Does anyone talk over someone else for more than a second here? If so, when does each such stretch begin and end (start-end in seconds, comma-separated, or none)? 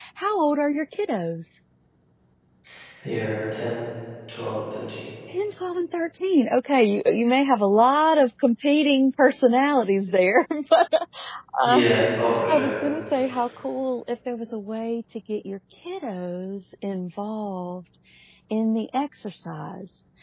none